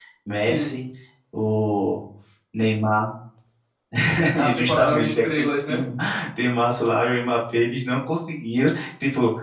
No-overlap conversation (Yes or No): No